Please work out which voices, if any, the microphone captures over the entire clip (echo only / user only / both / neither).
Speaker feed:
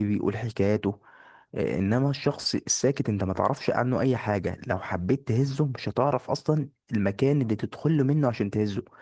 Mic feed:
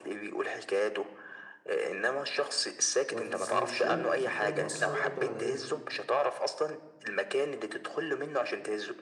both